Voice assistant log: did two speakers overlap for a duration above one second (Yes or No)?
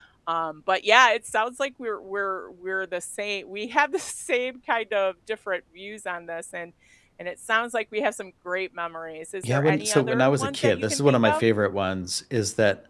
Yes